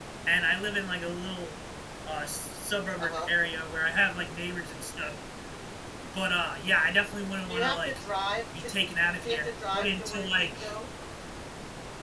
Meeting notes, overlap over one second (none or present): present